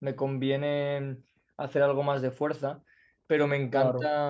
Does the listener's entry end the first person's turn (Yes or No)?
No